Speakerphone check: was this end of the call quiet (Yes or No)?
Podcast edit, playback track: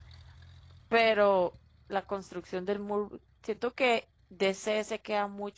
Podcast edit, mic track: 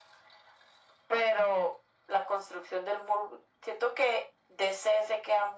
Yes